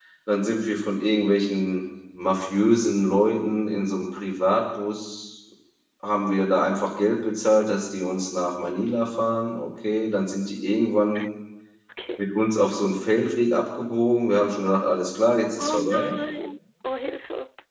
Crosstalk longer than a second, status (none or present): none